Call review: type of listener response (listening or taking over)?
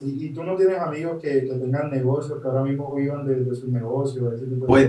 taking over